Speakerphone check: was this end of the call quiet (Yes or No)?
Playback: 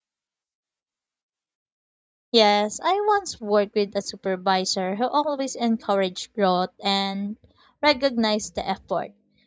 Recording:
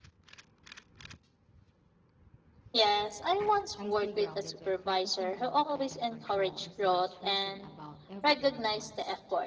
No